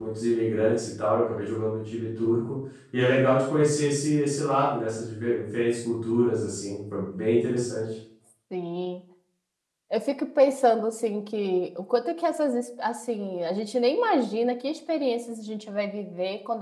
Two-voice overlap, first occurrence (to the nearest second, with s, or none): none